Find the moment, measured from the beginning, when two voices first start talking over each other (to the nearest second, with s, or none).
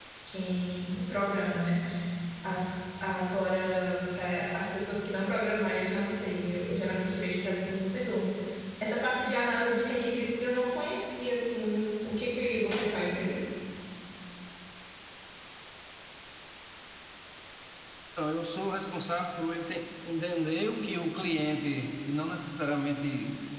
none